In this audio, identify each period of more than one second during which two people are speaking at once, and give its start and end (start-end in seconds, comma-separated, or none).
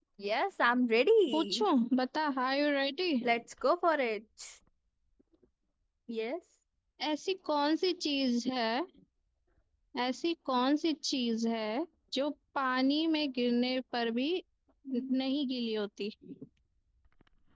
none